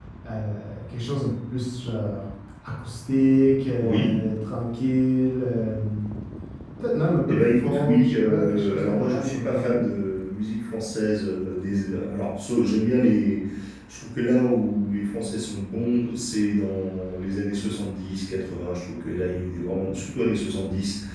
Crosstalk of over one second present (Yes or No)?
Yes